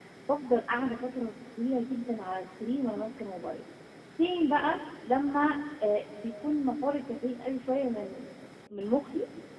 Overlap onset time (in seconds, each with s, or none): none